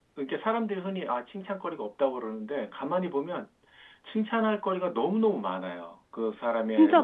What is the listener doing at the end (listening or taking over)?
listening